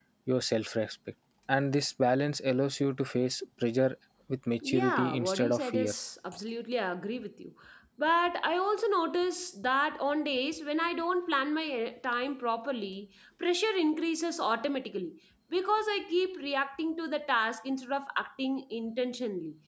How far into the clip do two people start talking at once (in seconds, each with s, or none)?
4.6 s